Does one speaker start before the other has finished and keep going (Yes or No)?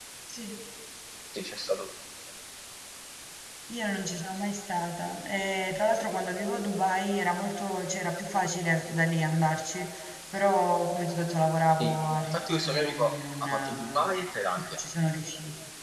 Yes